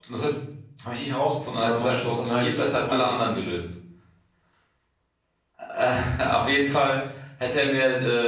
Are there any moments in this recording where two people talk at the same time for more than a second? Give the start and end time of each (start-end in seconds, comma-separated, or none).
1.5-3.1